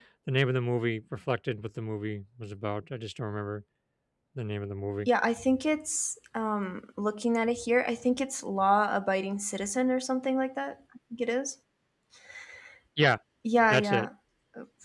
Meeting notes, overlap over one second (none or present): none